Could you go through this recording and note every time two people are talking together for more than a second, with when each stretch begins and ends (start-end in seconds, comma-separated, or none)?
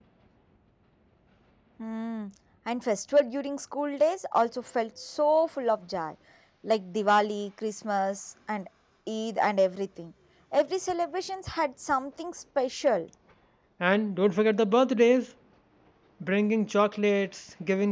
none